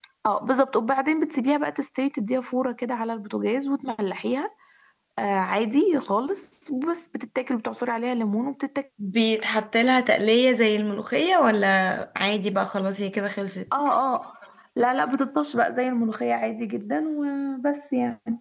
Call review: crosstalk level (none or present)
none